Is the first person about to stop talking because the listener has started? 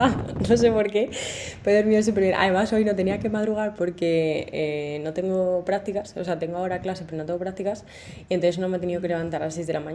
No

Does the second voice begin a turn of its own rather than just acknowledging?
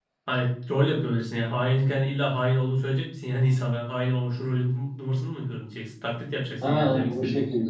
Yes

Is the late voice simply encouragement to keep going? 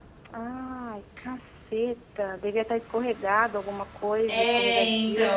No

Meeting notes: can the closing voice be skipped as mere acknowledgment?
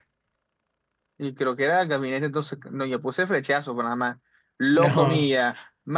Yes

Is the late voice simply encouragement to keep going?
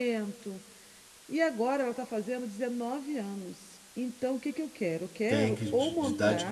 No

